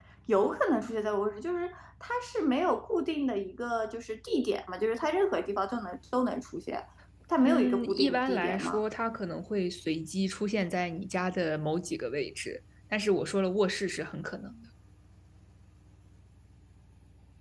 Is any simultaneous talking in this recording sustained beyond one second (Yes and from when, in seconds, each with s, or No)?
Yes, from 7.4 s